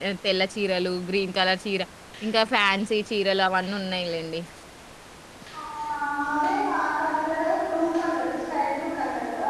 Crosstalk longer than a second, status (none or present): none